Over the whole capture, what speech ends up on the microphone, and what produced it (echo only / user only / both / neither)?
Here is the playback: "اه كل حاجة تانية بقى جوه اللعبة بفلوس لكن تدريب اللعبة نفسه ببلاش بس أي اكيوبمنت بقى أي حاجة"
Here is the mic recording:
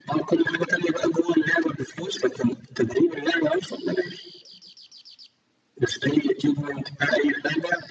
echo only